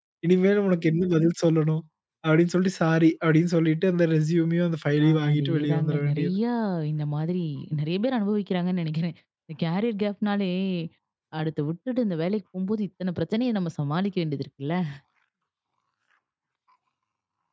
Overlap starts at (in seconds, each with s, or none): 5.0 s